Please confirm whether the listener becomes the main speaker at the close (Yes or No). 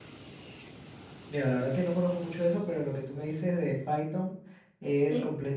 No